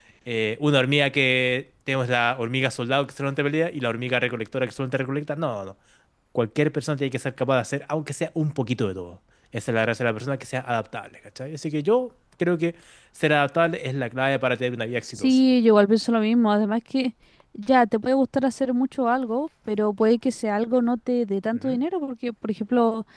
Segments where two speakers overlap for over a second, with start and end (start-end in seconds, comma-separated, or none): none